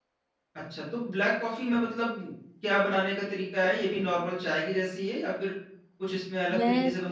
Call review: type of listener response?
taking over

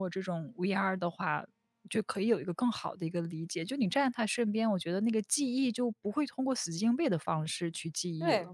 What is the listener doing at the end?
taking over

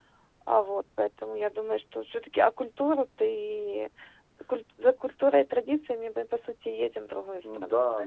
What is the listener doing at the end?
taking over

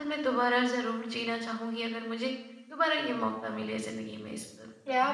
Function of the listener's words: taking over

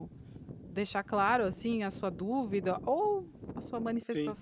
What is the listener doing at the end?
listening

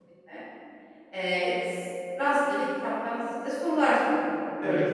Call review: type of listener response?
taking over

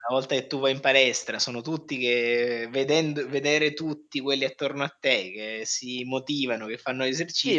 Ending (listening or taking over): taking over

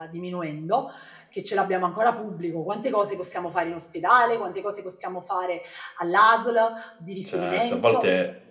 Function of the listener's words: taking over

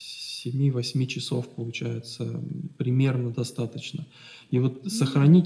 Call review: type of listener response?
listening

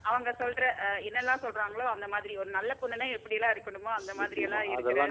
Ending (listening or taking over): taking over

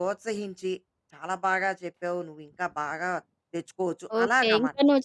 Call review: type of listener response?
taking over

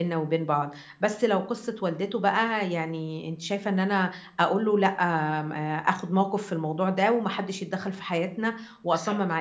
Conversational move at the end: taking over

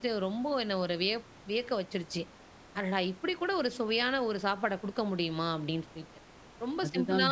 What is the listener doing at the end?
listening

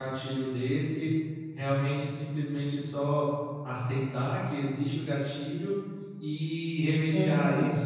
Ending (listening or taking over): listening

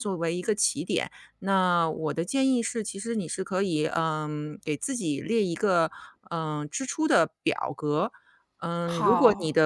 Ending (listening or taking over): listening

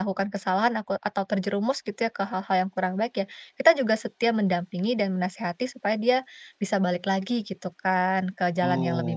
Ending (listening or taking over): taking over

